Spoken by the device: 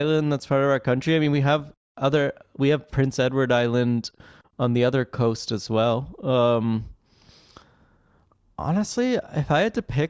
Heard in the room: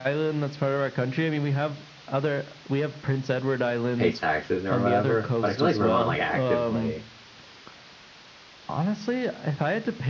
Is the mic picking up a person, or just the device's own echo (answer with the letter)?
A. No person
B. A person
B